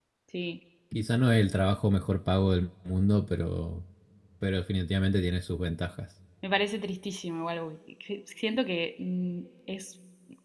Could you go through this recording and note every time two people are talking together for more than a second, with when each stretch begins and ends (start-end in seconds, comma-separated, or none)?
none